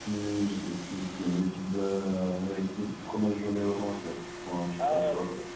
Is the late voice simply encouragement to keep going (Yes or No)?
No